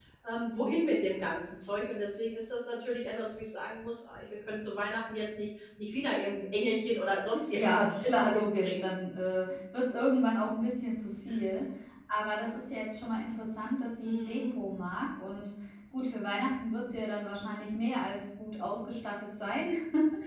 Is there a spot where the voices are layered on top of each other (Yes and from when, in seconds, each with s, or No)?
Yes, from 7.5 s